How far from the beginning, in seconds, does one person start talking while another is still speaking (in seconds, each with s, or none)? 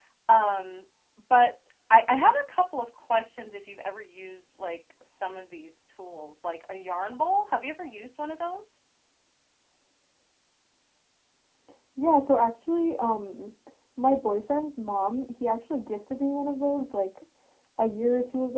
none